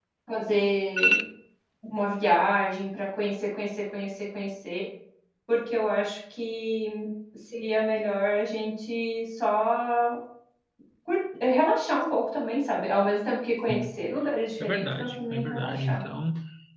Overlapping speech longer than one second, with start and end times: 14.6-16.0

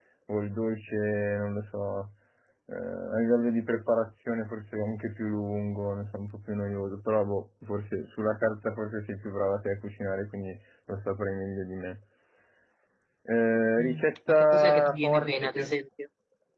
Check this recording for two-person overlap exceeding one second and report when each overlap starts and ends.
13.8-15.7

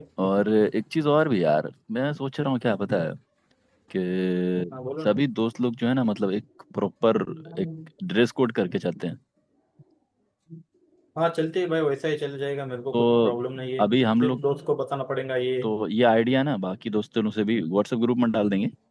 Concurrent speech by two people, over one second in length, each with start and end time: none

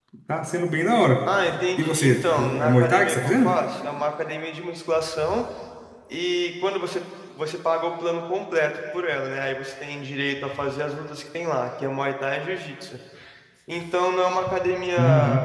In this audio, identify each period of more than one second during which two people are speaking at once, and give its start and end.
1.8-3.5

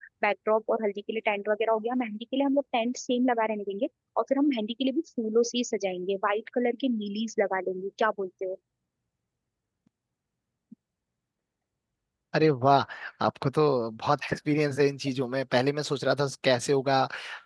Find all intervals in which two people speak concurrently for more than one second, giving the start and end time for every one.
none

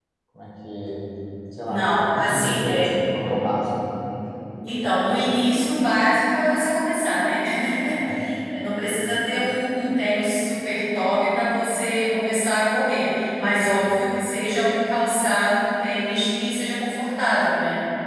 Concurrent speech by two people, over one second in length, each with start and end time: 1.6-2.9

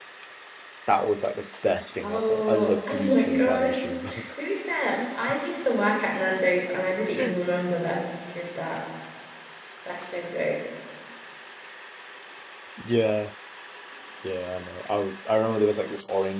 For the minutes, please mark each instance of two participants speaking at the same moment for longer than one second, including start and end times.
2.0-3.7

